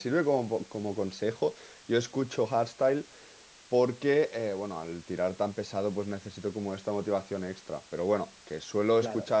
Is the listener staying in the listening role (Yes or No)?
Yes